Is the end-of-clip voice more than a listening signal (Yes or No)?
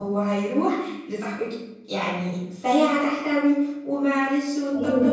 Yes